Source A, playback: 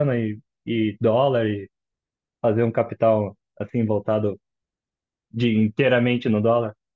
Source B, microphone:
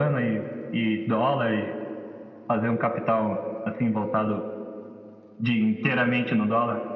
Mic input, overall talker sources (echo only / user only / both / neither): echo only